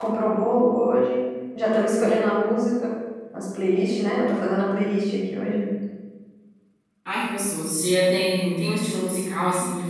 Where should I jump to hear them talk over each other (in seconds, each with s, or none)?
none